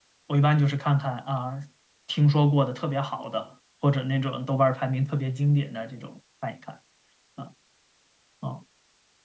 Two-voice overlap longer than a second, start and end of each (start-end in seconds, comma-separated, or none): none